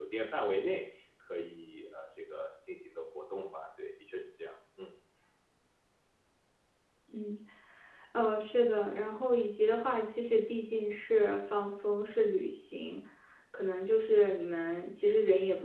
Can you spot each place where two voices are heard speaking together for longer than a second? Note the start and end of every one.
none

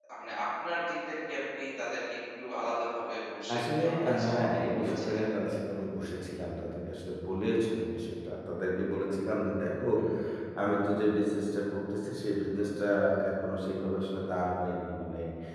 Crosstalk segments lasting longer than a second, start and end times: 3.6-5.2

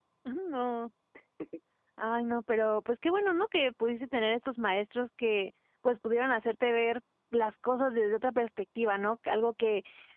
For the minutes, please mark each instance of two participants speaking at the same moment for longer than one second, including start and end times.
none

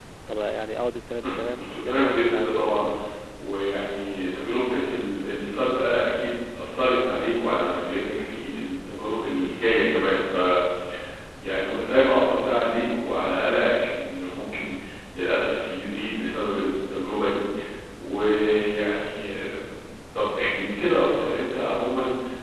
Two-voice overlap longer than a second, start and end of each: 1.2-2.6

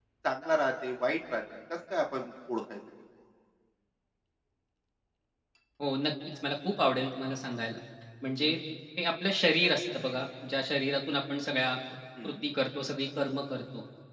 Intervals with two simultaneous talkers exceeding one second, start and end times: none

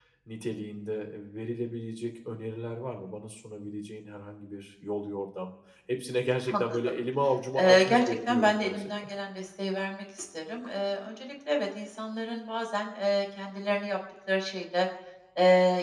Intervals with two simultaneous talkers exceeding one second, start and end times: 7.6-8.9

